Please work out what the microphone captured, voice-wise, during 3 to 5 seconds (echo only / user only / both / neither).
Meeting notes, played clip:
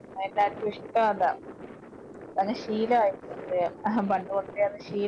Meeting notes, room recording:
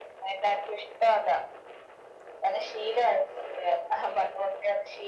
echo only